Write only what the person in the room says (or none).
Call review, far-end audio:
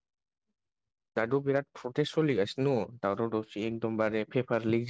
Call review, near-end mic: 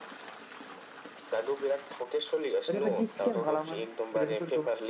ओरैबायदि स्केम खालामो स्टुदेन्टफोरखौ